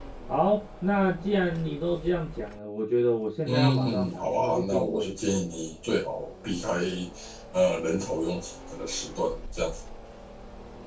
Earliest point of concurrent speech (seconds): 3.4 s

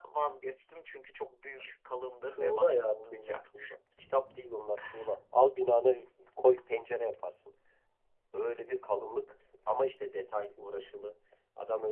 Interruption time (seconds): 2.3 s

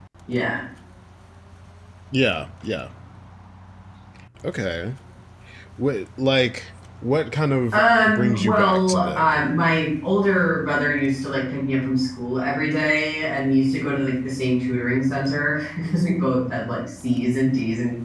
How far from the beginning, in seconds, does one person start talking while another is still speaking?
7.7 s

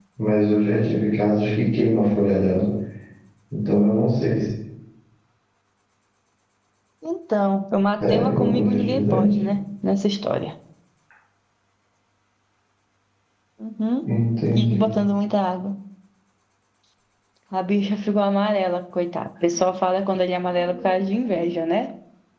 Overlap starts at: 8.1 s

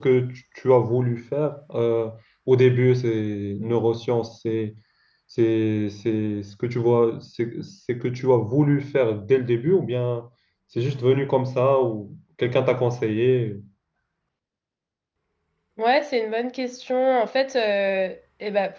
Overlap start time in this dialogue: none

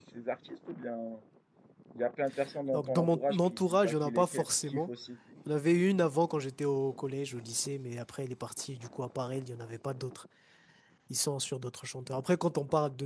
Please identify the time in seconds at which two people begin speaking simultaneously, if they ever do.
2.7 s

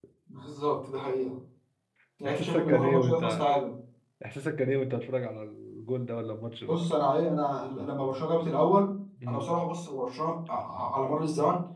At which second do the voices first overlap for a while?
2.3 s

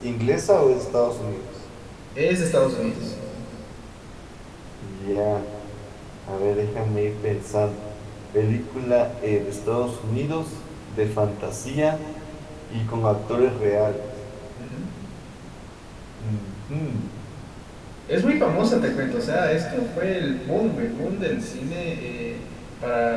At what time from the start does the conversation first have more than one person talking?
none

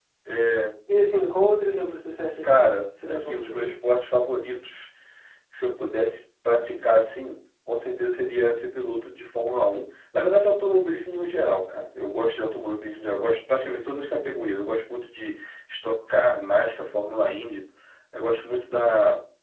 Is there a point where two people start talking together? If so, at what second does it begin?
2.4 s

